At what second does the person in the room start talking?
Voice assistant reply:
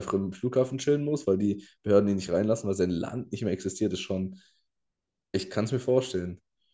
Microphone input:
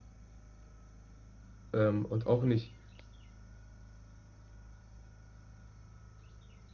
1.7 s

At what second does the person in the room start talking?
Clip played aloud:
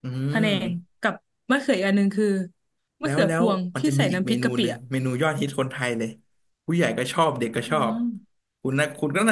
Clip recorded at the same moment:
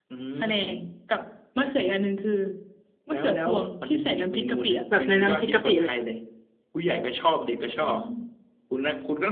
4.9 s

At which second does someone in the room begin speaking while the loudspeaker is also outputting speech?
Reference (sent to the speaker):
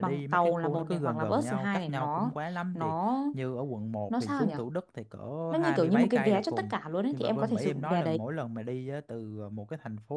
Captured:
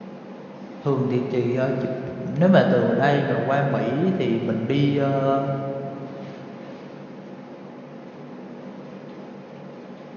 0.8 s

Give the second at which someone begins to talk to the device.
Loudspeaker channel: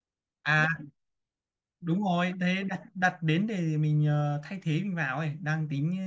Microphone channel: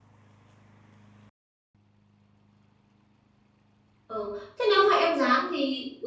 4.0 s

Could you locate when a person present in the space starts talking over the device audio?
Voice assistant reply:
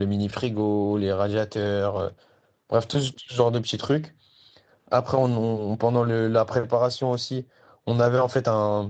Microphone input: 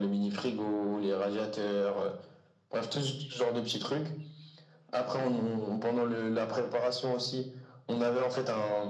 none

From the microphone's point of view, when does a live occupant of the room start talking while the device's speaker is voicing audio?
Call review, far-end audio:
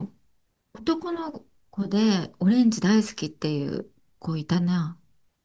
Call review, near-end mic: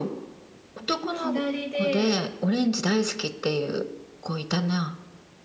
1.1 s

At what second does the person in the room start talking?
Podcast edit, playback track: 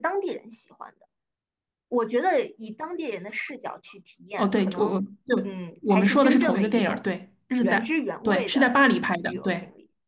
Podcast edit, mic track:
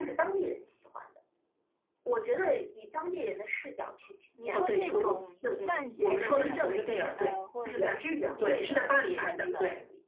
4.3 s

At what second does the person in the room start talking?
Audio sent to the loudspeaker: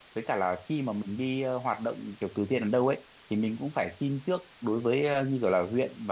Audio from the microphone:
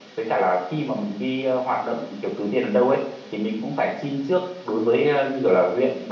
none

